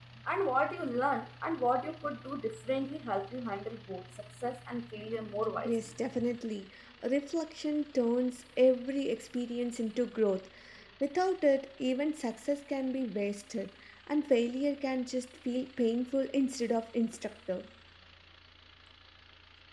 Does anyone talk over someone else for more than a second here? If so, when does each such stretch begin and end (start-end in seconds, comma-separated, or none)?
none